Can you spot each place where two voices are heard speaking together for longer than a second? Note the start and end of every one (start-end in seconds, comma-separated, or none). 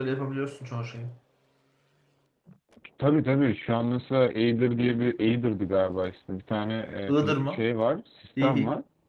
none